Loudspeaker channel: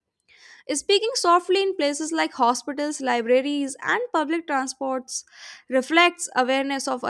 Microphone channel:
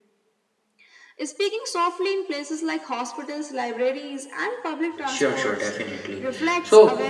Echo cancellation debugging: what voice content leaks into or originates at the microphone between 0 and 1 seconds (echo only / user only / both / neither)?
neither